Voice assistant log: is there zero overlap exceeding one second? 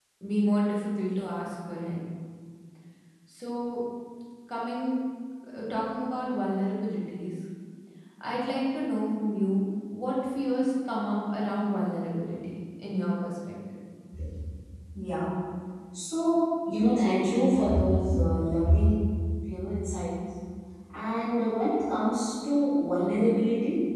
Yes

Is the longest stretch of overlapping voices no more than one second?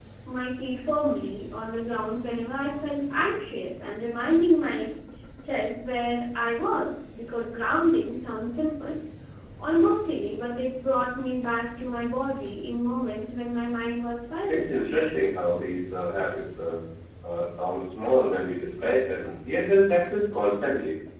Yes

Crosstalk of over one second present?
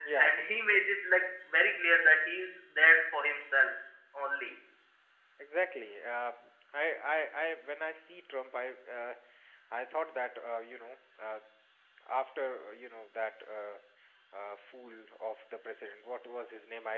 No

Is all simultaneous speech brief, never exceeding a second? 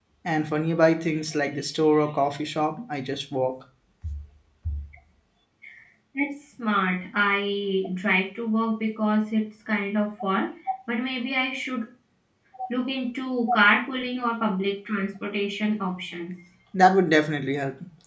Yes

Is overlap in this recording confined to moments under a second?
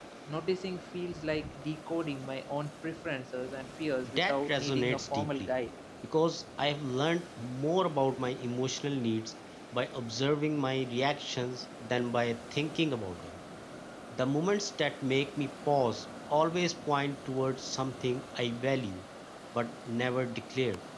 No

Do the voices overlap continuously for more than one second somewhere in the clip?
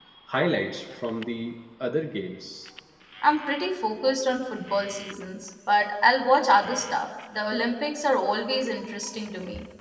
No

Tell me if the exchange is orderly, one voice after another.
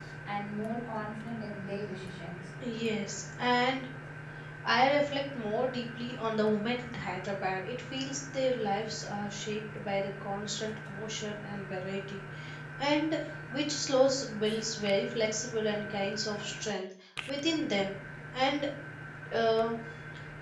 Yes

